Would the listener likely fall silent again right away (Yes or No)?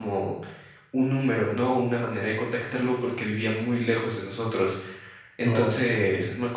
Yes